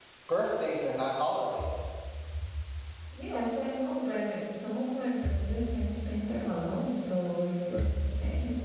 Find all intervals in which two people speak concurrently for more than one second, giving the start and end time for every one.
none

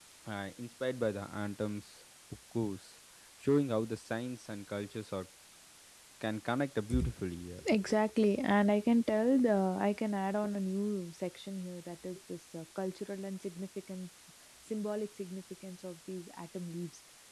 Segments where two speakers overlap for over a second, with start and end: none

